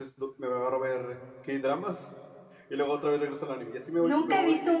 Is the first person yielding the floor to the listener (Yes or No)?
Yes